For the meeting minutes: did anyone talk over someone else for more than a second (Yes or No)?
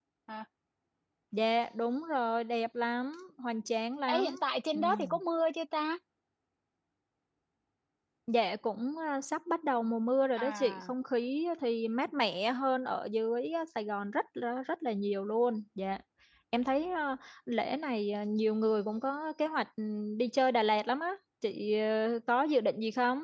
No